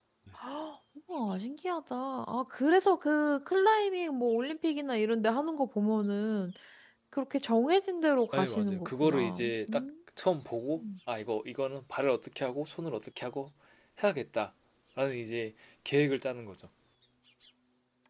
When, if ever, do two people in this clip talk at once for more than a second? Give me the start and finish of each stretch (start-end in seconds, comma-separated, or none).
8.3-9.8